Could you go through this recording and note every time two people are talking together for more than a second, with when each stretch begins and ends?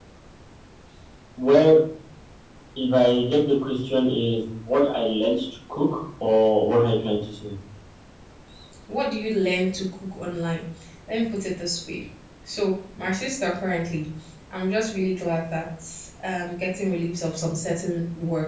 none

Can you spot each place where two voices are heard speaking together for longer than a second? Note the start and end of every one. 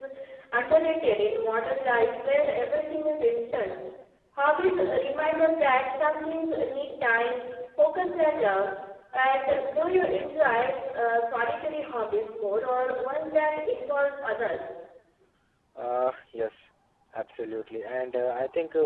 none

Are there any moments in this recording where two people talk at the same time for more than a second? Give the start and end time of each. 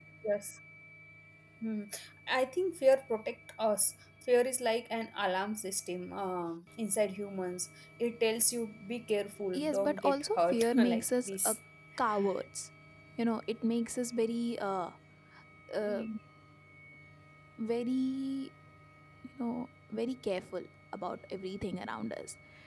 9.5-11.5

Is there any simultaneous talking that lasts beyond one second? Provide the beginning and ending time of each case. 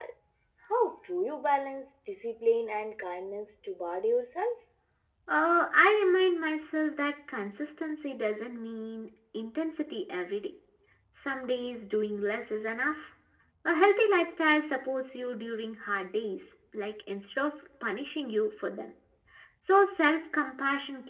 none

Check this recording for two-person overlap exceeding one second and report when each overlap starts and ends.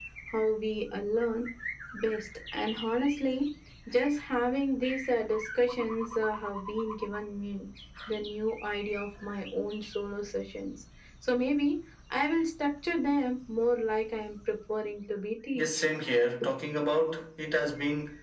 none

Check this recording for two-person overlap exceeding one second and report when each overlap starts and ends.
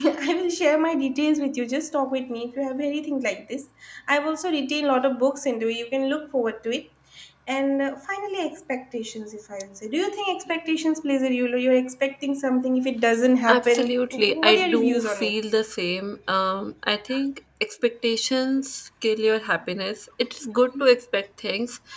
13.5-15.3

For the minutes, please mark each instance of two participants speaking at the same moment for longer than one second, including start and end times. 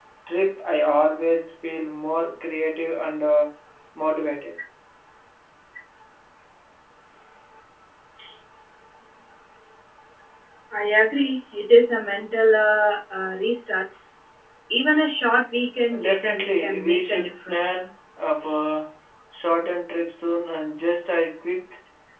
16.0-17.6

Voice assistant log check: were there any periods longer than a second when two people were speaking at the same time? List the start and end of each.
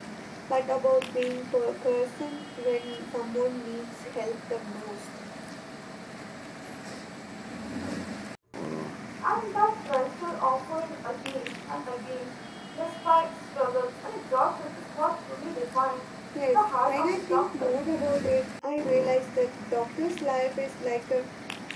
16.5-17.7

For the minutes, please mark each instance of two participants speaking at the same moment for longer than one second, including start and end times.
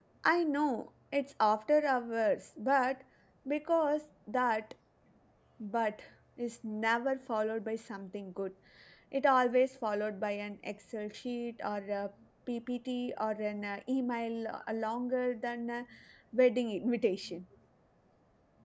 none

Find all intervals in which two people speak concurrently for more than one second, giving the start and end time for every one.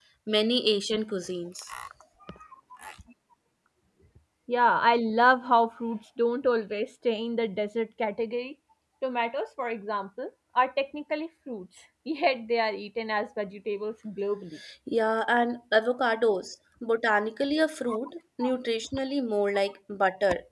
none

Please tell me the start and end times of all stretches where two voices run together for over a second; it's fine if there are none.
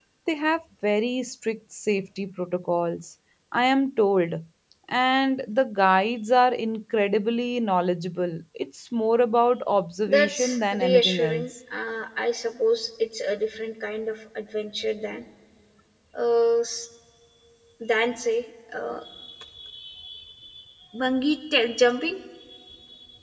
10.1-11.5

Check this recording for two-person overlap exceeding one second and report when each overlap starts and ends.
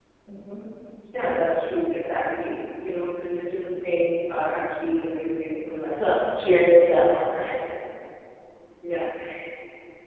none

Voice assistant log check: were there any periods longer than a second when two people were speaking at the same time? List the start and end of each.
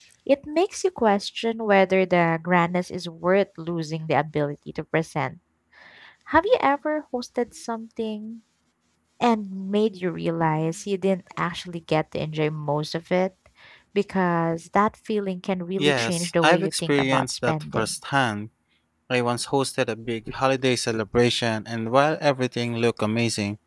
15.8-17.9

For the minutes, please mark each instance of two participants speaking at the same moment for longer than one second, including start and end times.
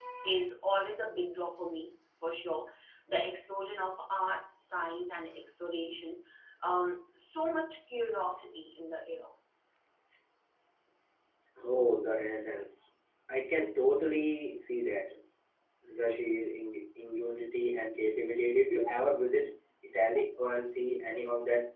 none

